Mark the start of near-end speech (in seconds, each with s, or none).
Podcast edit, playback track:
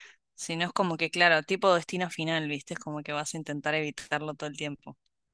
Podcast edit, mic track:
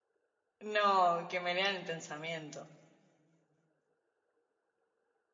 0.6 s